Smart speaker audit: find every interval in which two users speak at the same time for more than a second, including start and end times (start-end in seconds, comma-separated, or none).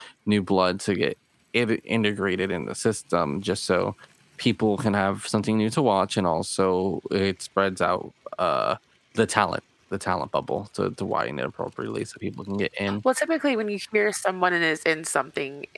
none